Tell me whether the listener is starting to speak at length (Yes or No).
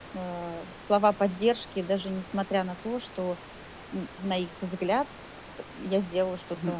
Yes